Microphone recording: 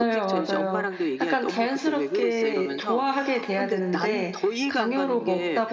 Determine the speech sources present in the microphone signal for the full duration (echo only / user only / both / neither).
both